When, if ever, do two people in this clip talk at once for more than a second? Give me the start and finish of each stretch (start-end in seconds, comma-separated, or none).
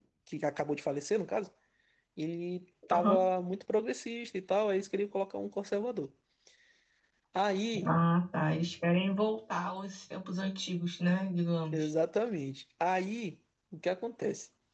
none